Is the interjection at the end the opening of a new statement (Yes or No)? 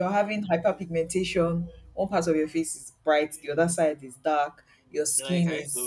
Yes